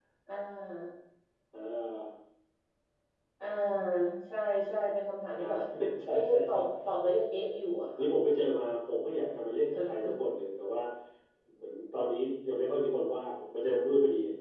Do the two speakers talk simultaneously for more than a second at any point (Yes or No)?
No